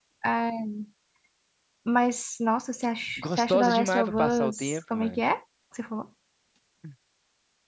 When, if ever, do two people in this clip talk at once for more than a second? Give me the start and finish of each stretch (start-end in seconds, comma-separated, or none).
3.2-5.2